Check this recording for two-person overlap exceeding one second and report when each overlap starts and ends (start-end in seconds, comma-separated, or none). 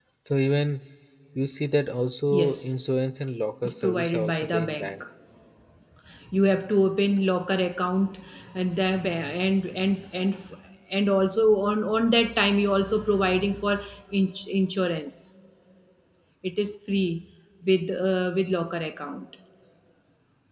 3.6-5.0